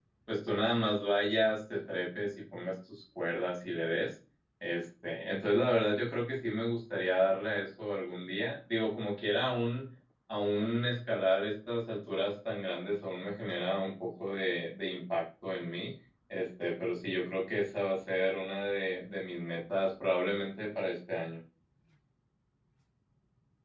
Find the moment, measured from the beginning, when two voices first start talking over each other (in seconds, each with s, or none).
none